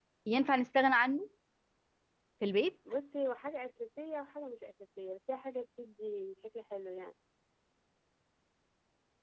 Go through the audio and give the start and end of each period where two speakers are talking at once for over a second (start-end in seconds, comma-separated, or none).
none